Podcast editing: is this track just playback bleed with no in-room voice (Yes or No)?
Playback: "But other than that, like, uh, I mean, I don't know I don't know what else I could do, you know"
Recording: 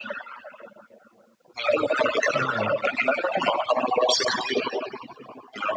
No